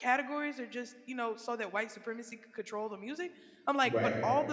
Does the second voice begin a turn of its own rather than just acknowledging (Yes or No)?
No